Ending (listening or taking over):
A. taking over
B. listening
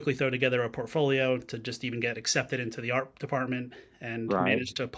B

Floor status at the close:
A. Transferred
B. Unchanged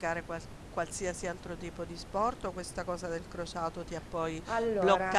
B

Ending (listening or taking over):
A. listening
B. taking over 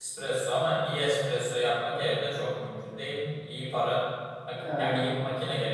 A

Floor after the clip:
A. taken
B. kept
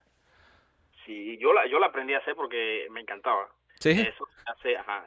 B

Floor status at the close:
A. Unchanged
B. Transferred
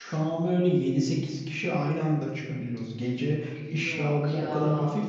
A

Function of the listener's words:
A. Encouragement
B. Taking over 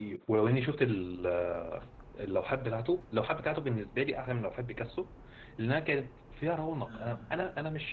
A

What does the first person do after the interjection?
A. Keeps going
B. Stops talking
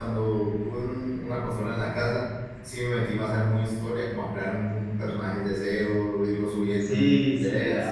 B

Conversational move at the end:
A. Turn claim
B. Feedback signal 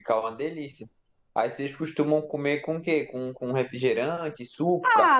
A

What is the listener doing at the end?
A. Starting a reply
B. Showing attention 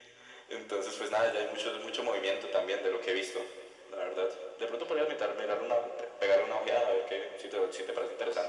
A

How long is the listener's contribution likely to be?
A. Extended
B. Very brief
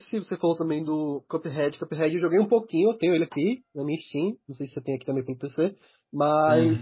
B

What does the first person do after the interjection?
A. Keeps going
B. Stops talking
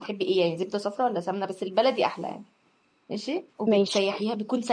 A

